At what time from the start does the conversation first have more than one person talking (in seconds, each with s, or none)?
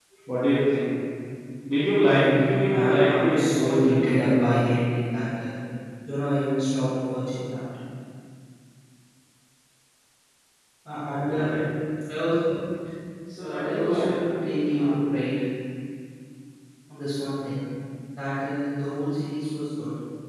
2.0 s